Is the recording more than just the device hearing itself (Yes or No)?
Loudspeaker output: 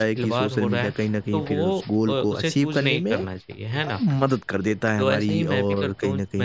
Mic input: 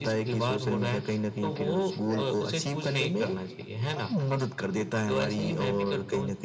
Yes